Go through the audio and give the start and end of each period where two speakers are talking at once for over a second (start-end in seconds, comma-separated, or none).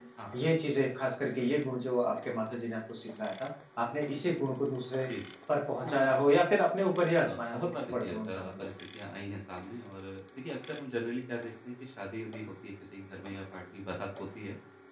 7.2-8.6